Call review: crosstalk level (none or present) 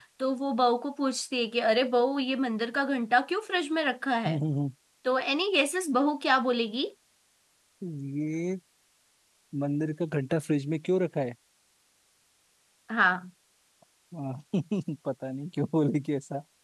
none